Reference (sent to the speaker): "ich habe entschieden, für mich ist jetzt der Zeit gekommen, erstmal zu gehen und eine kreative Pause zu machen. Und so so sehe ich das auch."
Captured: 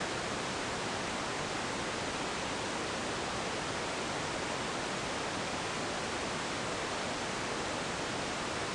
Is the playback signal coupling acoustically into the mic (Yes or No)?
No